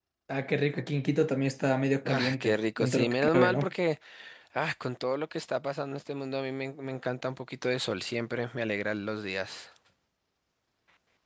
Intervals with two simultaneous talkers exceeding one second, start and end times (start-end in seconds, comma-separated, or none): 2.0-3.7